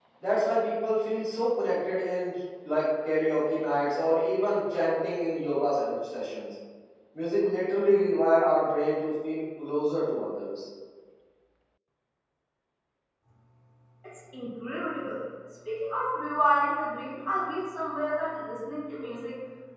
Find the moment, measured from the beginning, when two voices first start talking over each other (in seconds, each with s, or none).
none